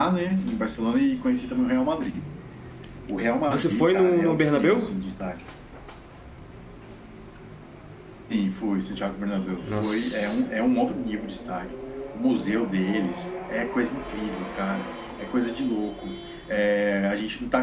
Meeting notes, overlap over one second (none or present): present